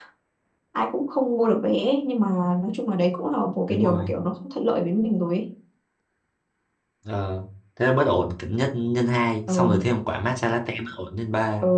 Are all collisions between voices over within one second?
Yes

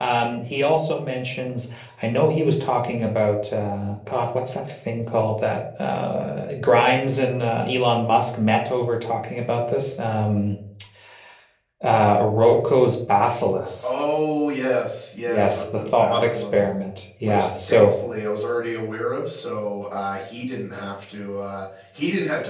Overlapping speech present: Yes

